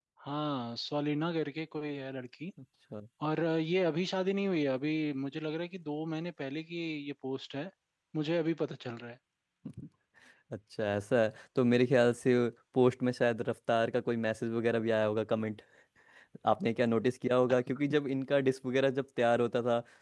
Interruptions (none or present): none